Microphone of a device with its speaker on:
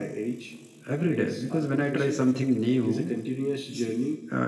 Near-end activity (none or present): none